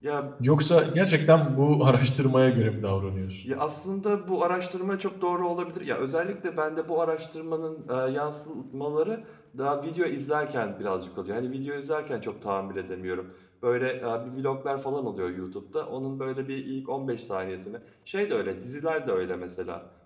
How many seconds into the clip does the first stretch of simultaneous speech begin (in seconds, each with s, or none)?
none